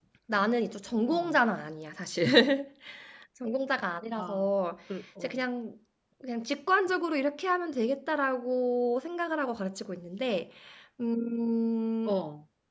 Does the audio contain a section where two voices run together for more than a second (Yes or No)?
No